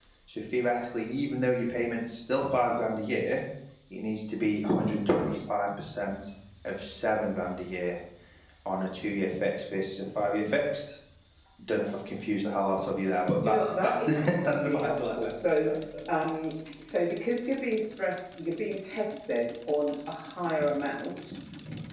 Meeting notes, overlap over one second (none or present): present